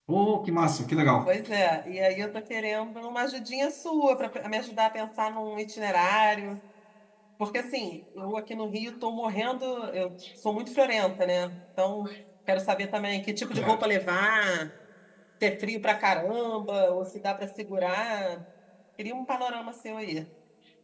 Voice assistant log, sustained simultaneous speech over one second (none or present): none